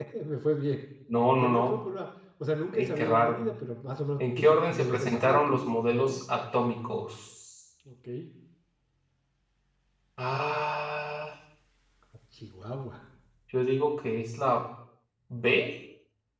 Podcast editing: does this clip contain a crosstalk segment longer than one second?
Yes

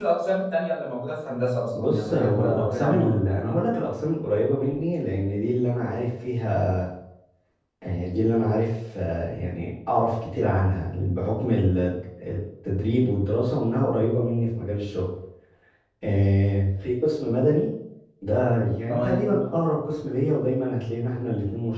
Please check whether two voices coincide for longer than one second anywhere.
Yes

